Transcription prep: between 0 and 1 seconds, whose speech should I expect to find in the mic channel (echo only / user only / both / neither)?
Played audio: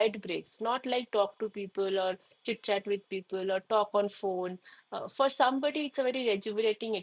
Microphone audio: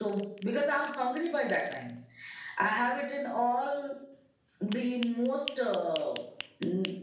user only